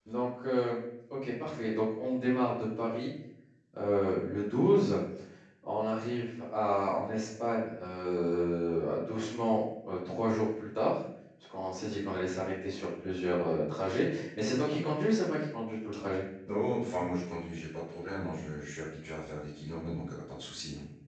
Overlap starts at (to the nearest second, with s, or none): none